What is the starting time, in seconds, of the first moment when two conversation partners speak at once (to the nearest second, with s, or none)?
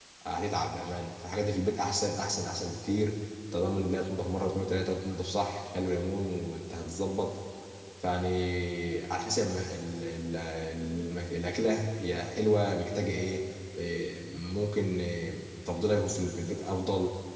none